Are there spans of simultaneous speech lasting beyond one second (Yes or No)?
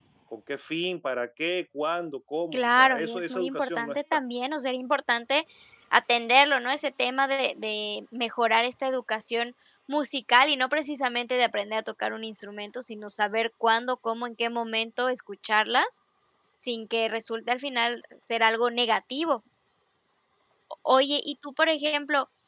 Yes